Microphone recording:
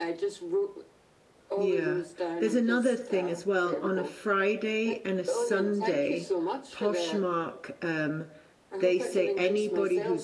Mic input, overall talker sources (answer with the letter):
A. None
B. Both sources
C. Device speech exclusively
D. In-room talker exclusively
B